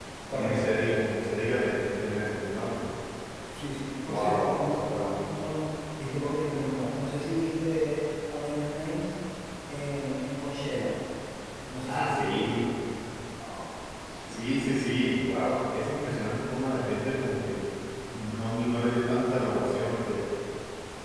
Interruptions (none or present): present